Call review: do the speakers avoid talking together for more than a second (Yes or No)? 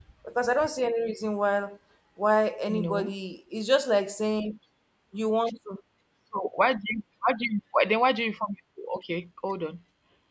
Yes